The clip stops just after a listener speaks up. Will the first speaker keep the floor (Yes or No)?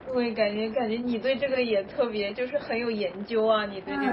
No